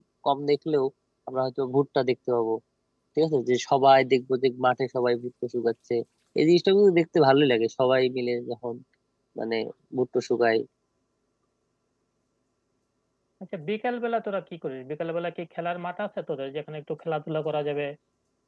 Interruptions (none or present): none